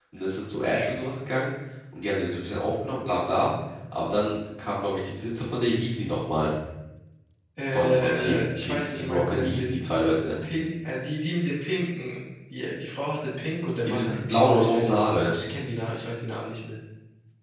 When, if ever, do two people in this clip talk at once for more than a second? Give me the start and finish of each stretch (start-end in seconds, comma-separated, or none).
7.7-9.7, 13.8-15.3